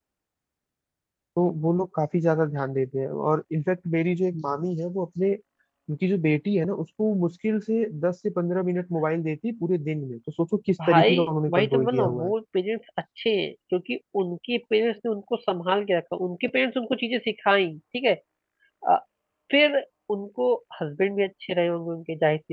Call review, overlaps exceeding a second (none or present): present